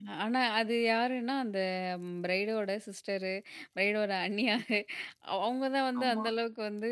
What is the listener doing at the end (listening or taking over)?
listening